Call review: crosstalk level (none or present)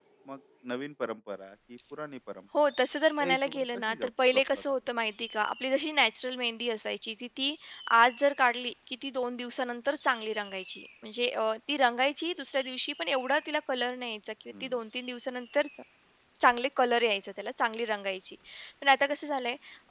present